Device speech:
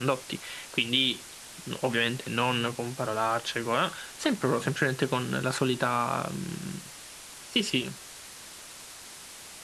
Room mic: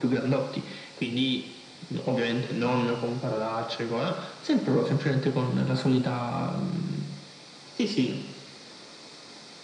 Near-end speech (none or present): none